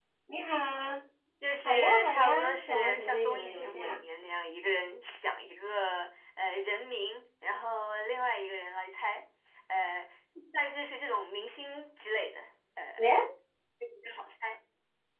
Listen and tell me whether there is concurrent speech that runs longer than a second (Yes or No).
Yes